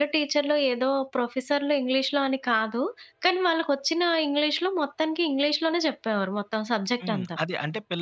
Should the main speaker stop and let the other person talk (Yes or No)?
Yes